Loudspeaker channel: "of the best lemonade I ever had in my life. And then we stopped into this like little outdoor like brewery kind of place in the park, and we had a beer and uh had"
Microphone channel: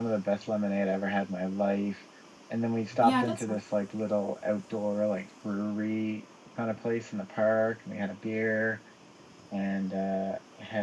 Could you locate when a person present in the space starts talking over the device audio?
3.0 s

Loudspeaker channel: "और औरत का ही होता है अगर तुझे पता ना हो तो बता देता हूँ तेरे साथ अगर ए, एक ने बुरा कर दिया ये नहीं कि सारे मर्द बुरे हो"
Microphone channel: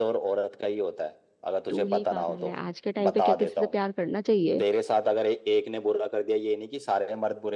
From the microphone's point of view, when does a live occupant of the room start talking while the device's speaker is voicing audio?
1.7 s

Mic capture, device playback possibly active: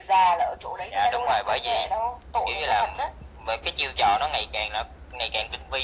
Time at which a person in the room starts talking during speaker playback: none

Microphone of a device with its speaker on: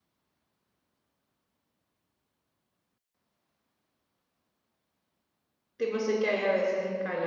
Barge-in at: 5.8 s

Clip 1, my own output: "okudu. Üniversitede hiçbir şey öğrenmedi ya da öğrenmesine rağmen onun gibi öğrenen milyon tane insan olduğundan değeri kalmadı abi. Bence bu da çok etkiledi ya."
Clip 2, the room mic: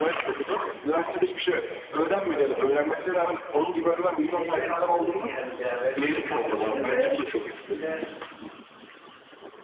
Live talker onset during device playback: 4.3 s

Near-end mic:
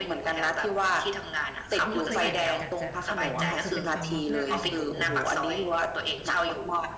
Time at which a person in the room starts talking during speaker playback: 1.9 s

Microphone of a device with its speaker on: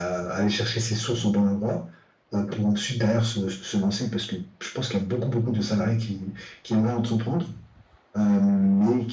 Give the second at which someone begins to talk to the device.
none

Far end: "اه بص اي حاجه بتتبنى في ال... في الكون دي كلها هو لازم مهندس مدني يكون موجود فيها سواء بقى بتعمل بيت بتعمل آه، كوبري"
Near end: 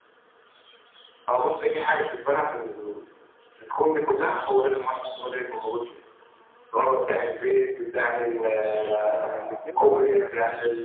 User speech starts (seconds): 9.0 s

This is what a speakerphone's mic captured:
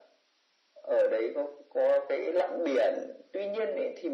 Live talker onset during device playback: none

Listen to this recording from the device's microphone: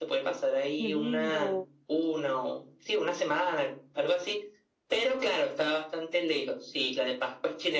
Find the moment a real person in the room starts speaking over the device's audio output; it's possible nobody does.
0.8 s

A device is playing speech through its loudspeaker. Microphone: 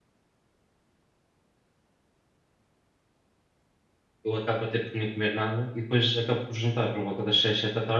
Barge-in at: 4.2 s

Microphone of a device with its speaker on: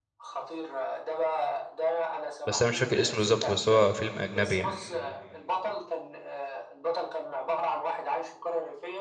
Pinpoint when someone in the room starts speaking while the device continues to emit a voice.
2.5 s

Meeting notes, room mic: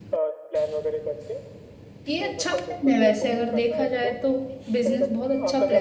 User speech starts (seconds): 2.1 s

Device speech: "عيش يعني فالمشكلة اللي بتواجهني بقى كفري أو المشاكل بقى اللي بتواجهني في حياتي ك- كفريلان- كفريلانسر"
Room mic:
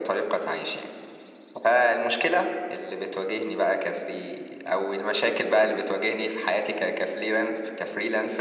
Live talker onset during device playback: none

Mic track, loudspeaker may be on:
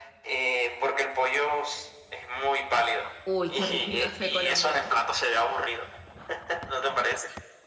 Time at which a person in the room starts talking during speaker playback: 3.2 s

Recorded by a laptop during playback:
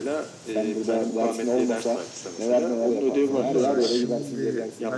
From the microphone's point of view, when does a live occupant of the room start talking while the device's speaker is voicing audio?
3.2 s

